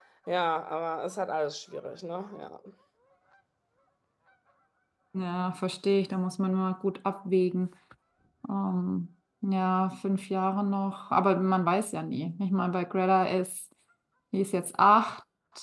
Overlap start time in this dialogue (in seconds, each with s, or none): none